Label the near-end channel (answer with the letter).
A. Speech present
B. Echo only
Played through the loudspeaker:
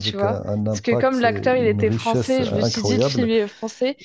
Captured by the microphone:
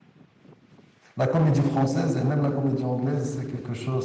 A